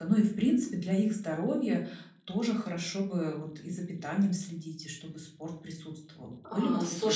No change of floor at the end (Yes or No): No